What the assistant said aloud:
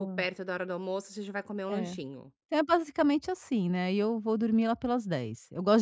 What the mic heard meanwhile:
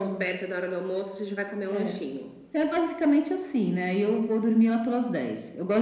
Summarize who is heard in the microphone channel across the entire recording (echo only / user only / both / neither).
echo only